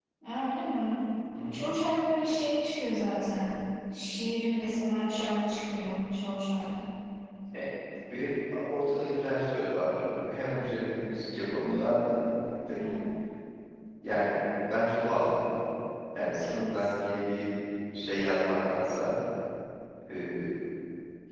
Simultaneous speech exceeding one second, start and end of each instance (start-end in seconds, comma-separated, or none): none